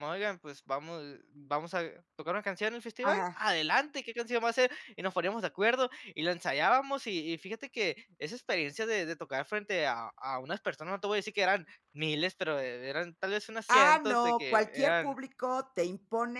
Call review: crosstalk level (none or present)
present